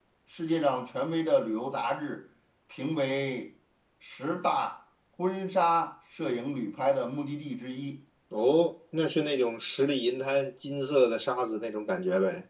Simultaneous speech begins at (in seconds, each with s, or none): none